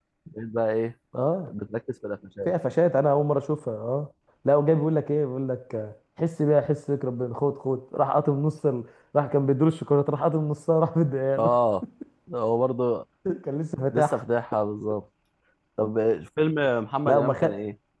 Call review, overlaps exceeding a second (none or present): none